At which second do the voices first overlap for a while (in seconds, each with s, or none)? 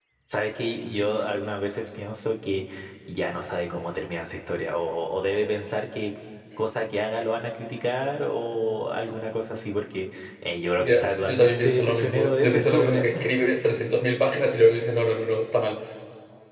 10.8 s